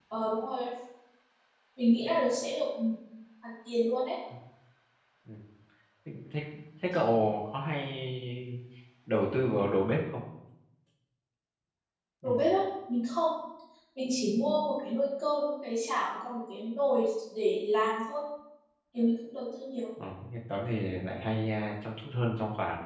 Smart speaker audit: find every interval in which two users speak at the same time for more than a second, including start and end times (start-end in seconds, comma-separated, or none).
none